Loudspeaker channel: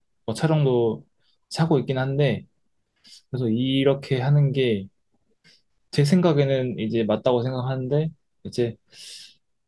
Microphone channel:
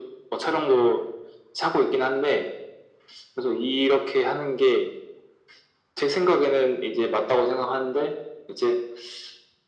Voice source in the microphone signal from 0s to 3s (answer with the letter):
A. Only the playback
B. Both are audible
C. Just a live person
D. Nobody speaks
A